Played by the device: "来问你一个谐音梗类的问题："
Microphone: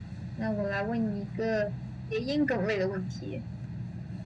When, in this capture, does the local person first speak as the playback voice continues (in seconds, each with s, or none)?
none